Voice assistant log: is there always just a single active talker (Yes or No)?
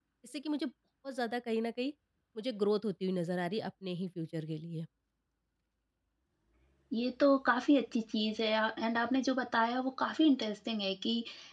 Yes